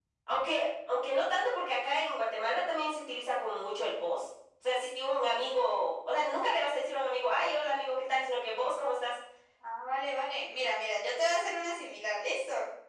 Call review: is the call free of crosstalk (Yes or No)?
Yes